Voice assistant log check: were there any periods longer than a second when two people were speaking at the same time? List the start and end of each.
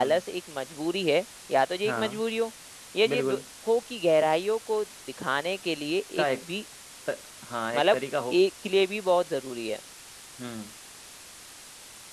none

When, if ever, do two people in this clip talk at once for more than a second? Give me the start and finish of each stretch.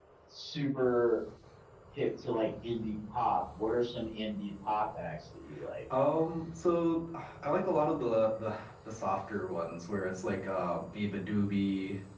none

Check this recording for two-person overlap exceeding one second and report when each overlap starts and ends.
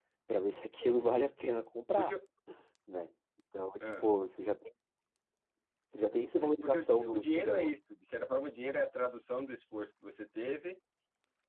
6.4-7.7

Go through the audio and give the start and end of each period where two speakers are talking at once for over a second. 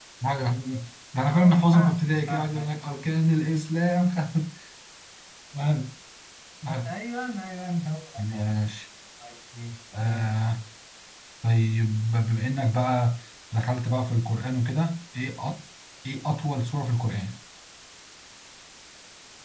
1.3-2.7

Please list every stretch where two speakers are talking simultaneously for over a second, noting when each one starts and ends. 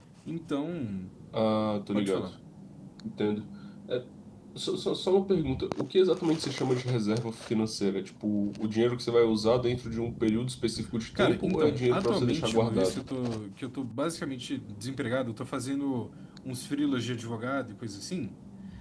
11.2-13.0

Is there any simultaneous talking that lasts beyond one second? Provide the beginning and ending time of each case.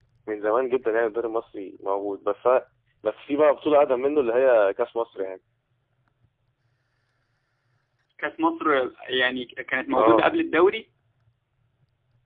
none

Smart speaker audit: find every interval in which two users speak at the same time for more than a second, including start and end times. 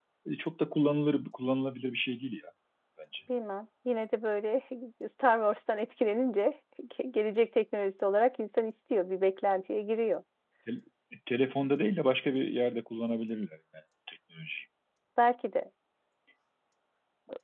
none

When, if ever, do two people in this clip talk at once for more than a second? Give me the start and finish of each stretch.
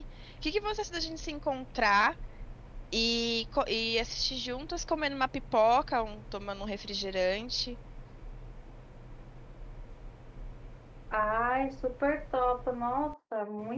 none

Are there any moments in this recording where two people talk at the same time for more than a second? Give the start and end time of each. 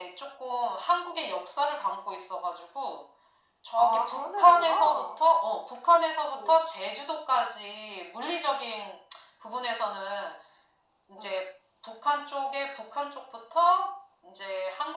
3.8-5.2

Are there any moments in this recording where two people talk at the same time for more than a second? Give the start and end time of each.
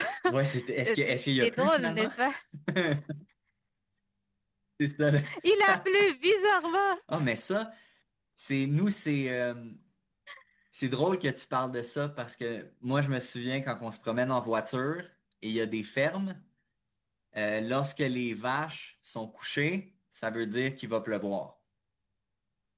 0.8-2.1

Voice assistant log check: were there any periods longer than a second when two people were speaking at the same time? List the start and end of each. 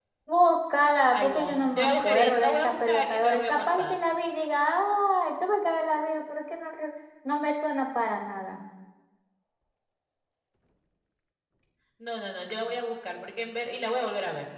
1.1-4.0

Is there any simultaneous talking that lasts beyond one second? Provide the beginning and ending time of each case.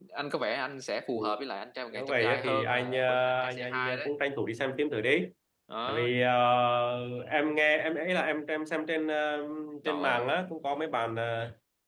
1.9-4.1

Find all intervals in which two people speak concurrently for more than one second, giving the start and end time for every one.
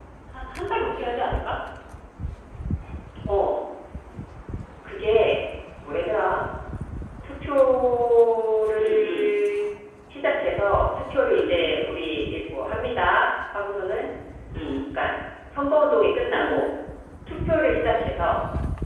none

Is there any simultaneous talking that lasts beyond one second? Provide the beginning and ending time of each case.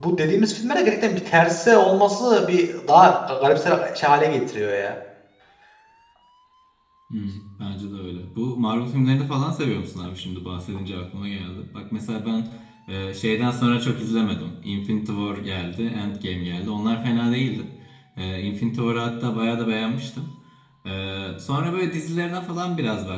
none

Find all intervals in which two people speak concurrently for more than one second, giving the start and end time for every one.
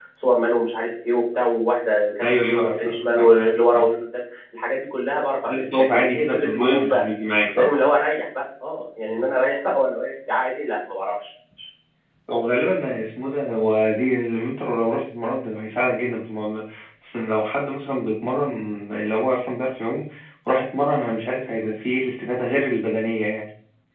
2.2-3.9, 5.5-7.1

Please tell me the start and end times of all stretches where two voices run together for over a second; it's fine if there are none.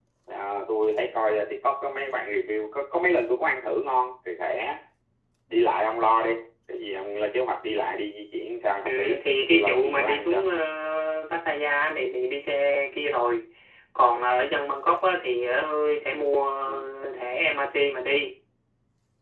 8.9-10.5

